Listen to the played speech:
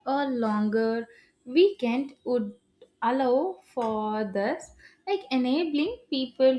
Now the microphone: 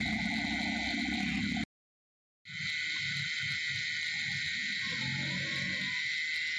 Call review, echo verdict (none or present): none